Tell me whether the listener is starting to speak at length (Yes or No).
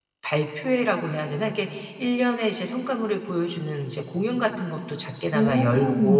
No